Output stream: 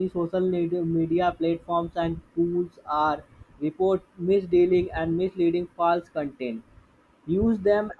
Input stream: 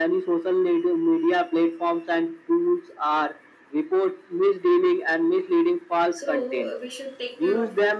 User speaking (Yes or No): Yes